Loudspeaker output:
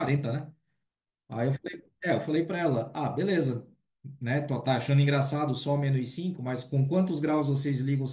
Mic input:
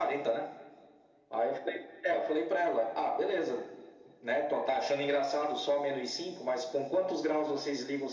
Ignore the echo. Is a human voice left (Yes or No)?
No